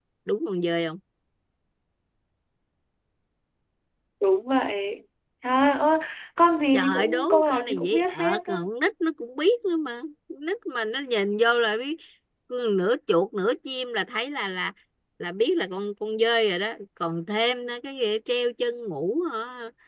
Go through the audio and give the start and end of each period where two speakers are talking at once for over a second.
6.7-8.6

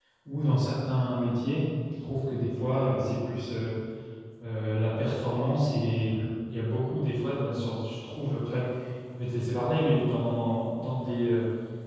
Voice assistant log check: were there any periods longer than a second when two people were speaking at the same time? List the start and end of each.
none

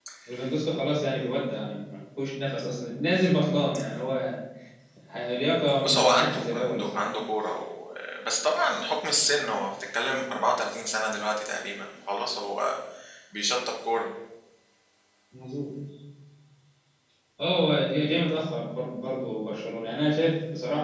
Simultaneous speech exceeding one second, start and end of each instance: 5.8-7.1

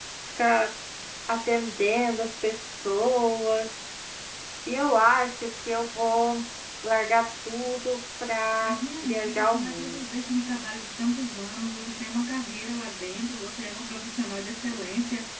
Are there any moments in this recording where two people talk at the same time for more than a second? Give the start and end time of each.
8.6-10.0

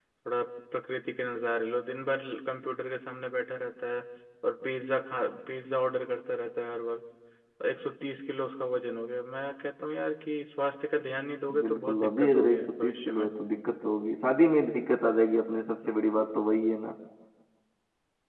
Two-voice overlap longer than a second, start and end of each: 11.6-13.3

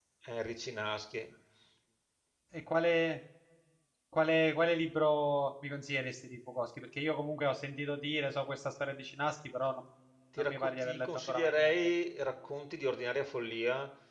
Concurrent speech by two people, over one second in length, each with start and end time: 10.4-11.7

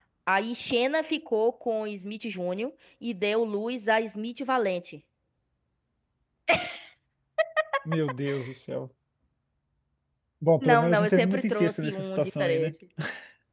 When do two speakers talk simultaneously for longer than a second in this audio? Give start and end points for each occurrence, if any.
10.6-12.7

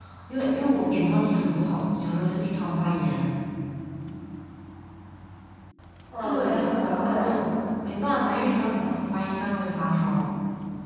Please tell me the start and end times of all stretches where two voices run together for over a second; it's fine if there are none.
6.2-7.4

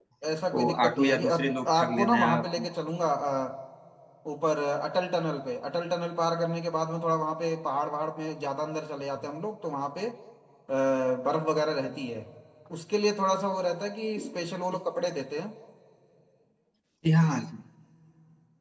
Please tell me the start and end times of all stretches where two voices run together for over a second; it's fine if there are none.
0.6-2.5

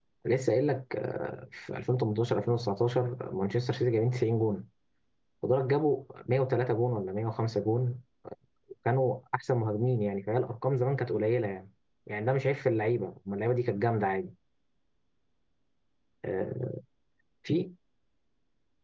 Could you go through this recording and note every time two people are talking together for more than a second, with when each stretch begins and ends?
none

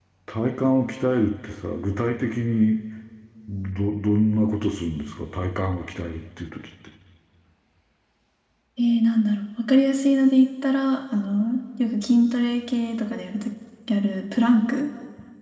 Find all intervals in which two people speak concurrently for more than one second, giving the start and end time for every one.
none

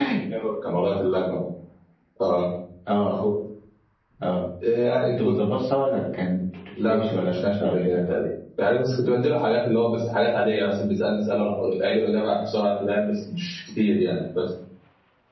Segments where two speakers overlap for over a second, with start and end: 6.9-8.2

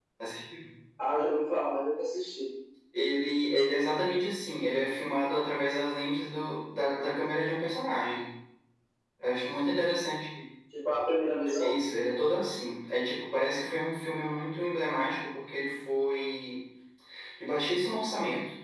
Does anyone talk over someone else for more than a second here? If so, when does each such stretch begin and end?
none

